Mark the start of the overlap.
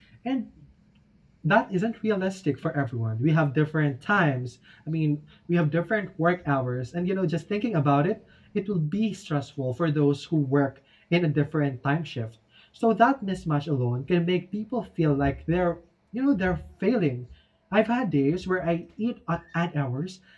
none

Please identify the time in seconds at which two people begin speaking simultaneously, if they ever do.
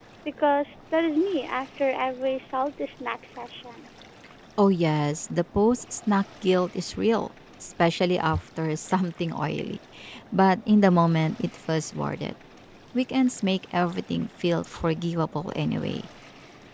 none

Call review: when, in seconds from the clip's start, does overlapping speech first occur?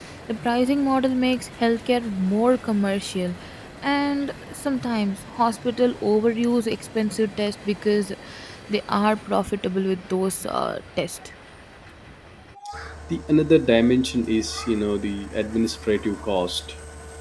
none

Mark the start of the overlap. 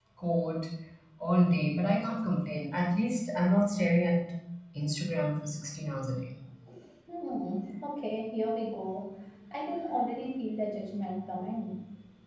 none

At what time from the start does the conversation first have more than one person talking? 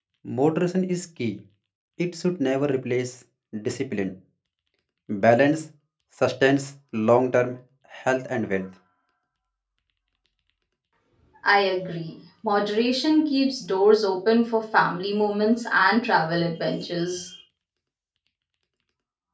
none

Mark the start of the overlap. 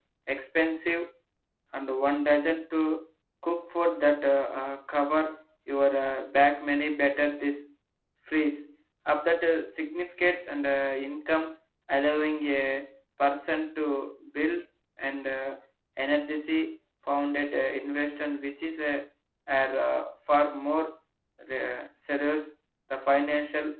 none

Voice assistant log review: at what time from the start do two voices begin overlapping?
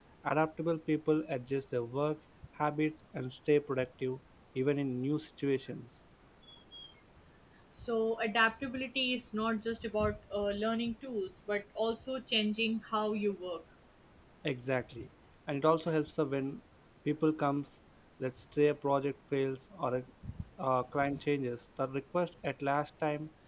none

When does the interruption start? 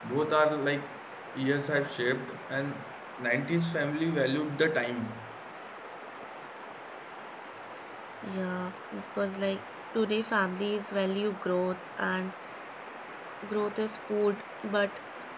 none

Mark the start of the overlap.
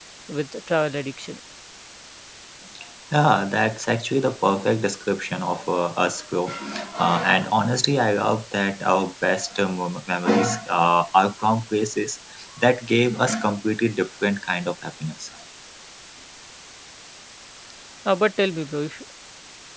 none

